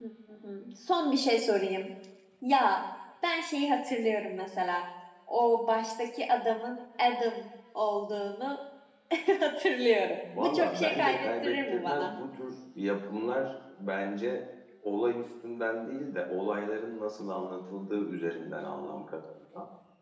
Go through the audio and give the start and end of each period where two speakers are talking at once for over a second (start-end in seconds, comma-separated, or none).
10.4-12.1